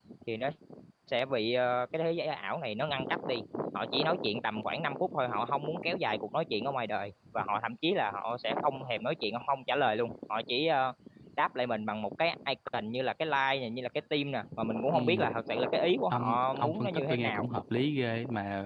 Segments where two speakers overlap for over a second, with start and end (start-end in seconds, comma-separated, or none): 16.1-17.5